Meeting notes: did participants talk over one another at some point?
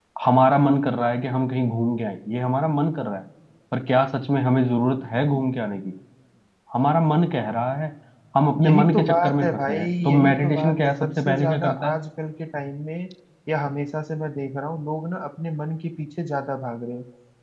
Yes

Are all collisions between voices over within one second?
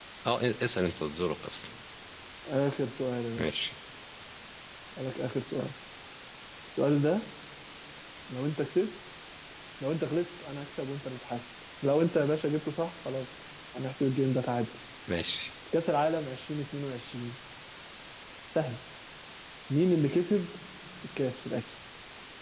Yes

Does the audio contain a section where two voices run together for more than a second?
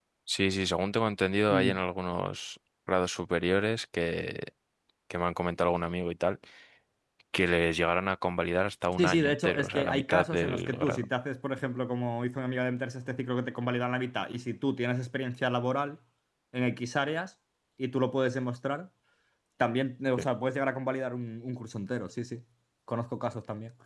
Yes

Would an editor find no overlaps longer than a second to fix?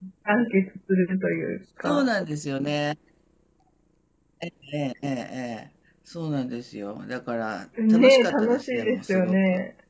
No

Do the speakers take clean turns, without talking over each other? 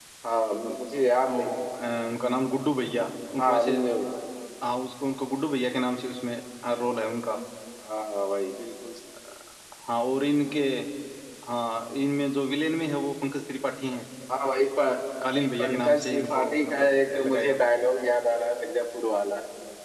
No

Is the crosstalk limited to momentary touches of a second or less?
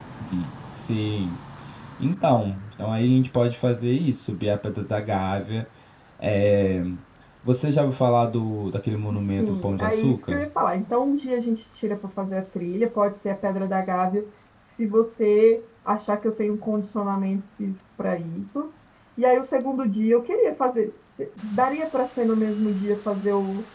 No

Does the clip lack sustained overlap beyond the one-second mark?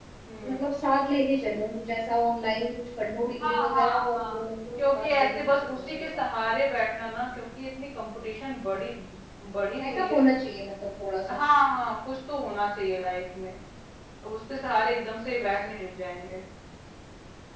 No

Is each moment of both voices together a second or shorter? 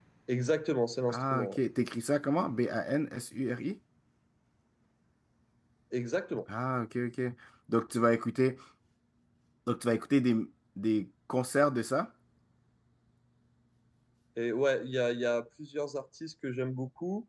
Yes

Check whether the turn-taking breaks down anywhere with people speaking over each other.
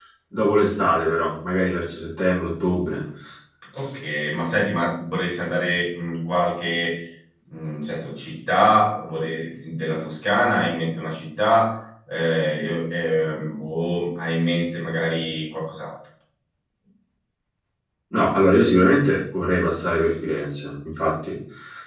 No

